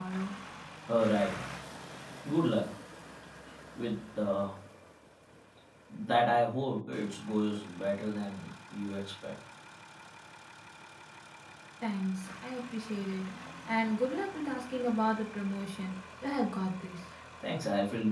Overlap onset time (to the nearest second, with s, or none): none